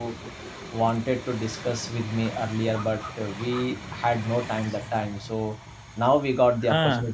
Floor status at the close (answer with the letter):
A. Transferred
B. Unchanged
B